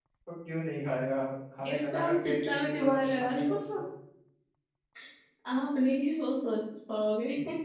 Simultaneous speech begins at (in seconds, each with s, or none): 1.7 s